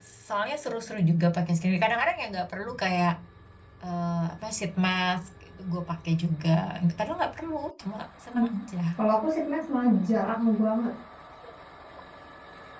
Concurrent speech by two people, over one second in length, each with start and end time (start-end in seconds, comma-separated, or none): none